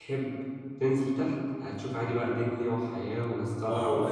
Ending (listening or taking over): taking over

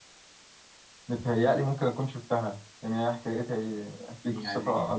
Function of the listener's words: taking over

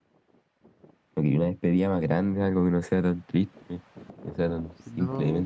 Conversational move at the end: taking over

